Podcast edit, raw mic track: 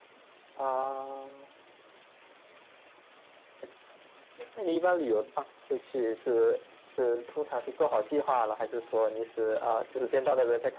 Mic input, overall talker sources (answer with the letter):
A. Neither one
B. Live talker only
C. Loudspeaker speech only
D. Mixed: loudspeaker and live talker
C